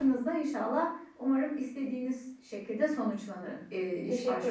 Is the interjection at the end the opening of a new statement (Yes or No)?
Yes